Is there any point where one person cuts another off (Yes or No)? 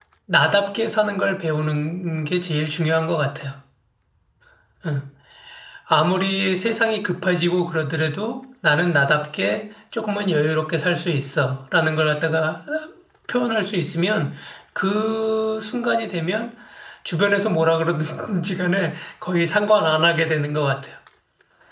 No